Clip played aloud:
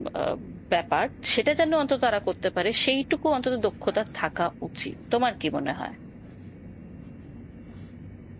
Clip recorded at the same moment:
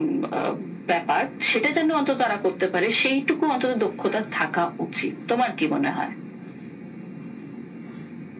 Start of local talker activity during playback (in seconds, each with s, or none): none